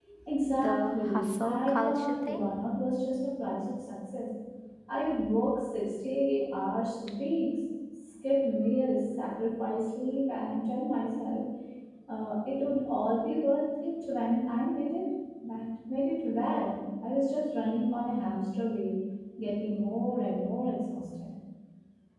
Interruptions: present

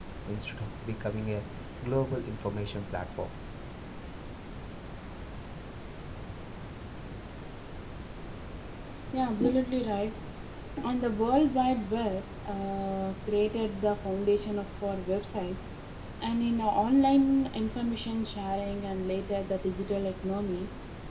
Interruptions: none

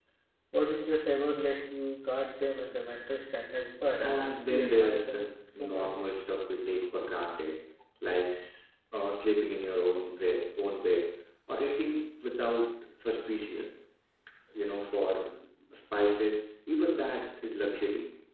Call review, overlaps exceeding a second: present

